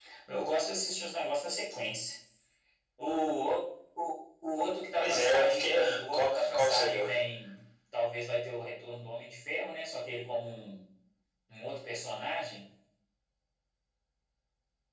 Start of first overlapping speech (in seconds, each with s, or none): 5.0 s